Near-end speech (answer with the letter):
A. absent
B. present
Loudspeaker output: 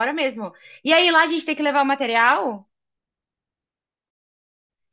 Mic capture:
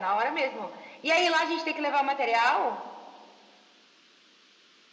A